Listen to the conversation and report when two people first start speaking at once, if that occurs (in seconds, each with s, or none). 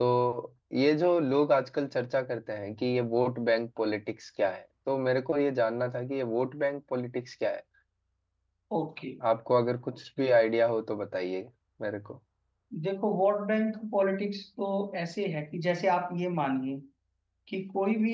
none